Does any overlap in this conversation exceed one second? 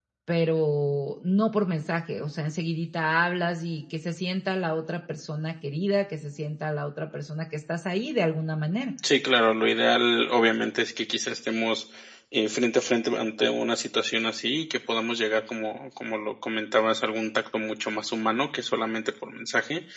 No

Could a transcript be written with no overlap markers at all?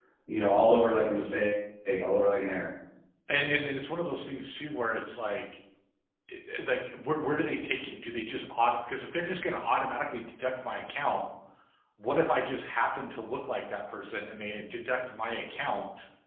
Yes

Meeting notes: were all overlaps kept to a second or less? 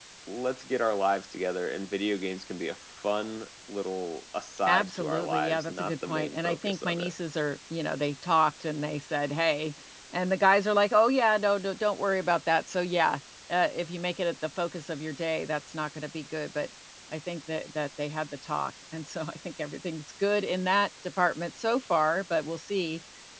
No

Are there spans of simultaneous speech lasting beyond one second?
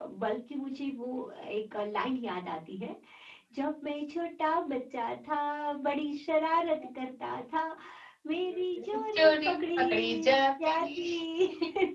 Yes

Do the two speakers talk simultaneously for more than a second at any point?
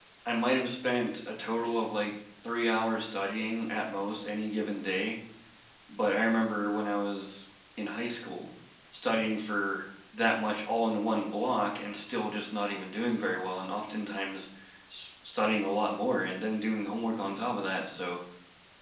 No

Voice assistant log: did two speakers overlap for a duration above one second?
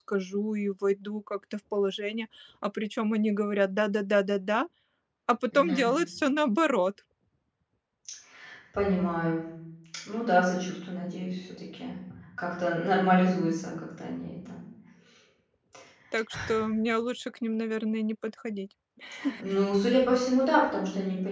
No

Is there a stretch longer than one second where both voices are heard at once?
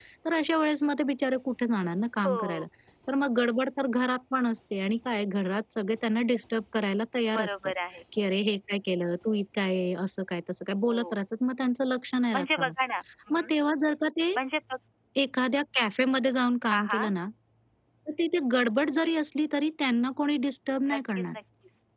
No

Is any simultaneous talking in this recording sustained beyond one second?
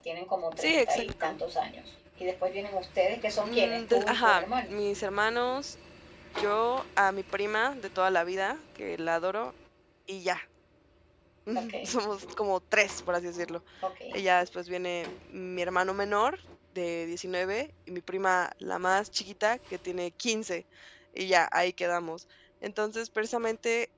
Yes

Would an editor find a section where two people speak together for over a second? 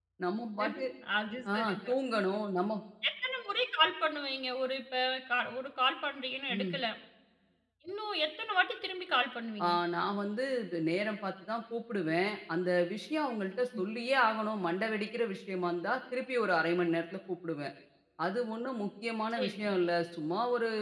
No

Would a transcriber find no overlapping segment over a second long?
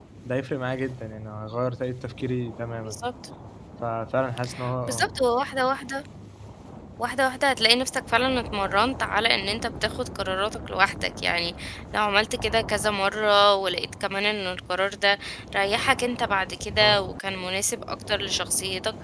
Yes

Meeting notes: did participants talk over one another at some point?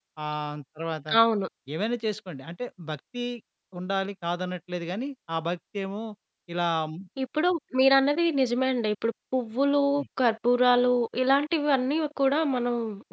No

